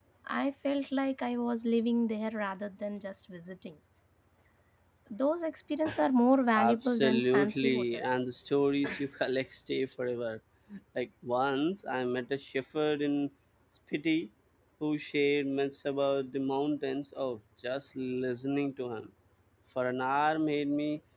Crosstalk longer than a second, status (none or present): present